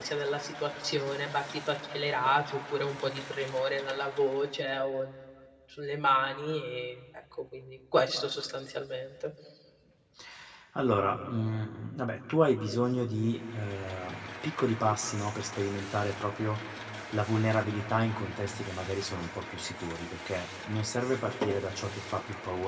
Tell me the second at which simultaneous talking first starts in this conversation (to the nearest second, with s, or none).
none